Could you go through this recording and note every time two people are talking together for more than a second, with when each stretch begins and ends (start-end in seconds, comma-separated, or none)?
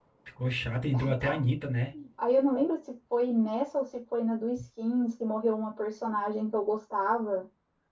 none